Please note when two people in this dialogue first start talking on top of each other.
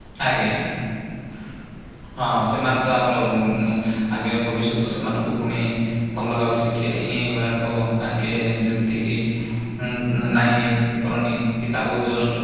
none

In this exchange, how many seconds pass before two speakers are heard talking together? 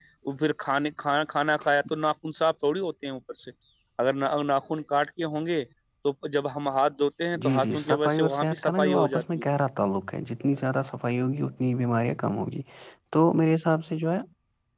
7.3 s

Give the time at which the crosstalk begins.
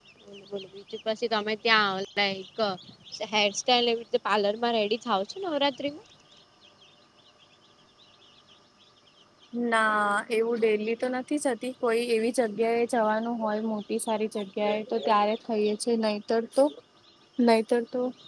none

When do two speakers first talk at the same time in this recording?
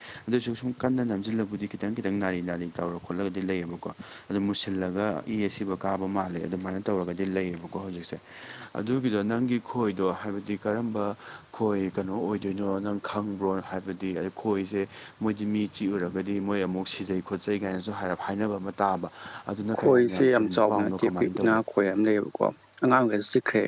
19.8 s

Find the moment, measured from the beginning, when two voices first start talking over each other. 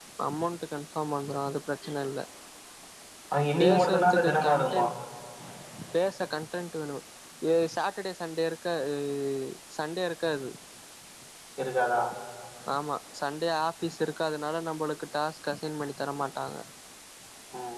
3.6 s

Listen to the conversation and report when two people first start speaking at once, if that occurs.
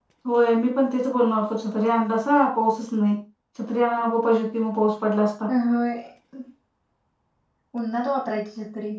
none

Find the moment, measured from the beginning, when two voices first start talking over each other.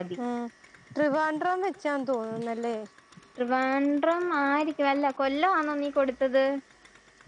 none

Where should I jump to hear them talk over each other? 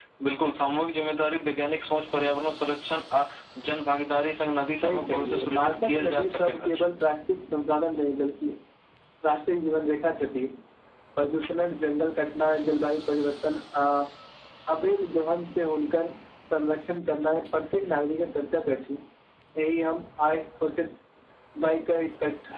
4.8 s

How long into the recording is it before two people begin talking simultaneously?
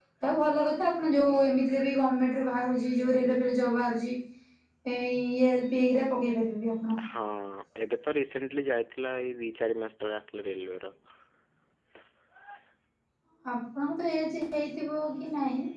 none

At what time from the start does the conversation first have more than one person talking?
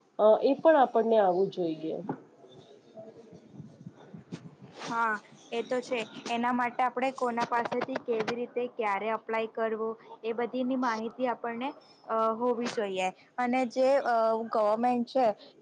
none

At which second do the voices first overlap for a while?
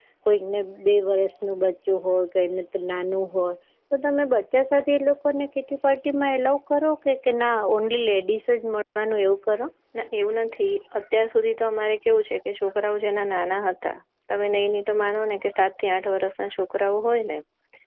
none

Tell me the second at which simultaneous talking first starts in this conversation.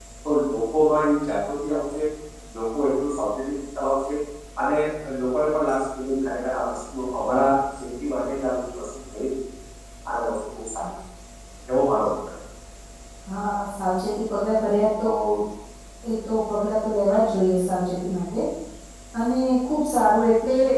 none

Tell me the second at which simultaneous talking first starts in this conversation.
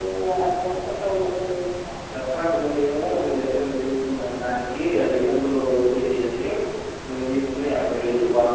none

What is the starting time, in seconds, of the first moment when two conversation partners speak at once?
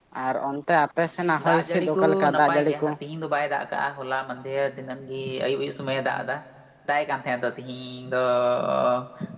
1.4 s

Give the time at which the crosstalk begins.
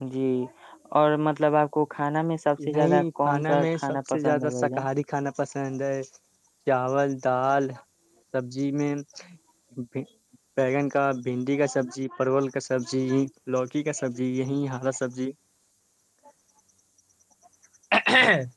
2.6 s

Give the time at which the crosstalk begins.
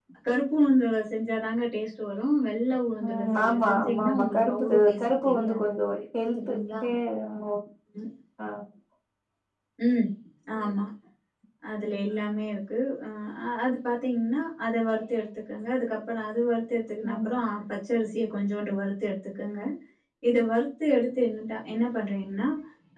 3.0 s

